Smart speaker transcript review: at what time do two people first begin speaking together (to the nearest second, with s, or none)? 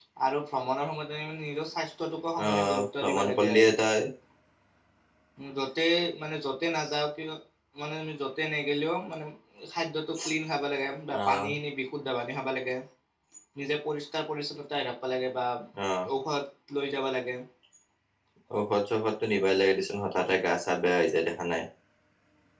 2 s